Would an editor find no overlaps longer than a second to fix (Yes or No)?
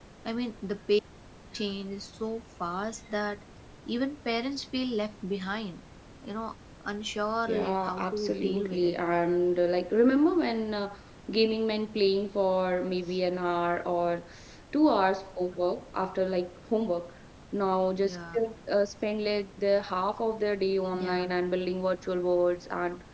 No